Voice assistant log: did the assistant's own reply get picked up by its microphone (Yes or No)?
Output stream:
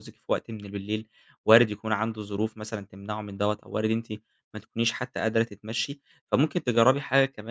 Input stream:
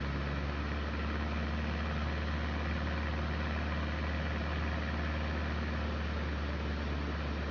No